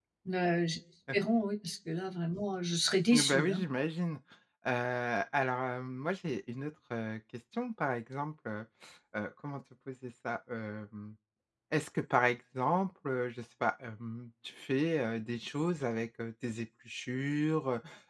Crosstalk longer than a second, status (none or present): none